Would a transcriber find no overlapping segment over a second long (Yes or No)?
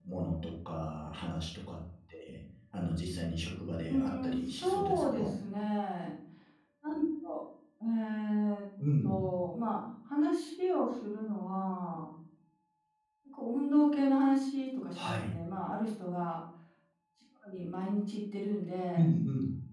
No